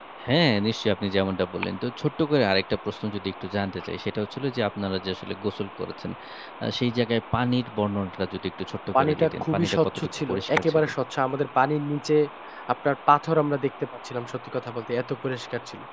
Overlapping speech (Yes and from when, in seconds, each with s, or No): Yes, from 8.9 s